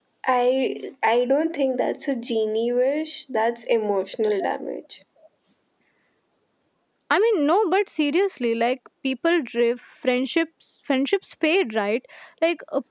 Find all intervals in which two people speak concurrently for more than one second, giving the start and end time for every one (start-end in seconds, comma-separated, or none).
none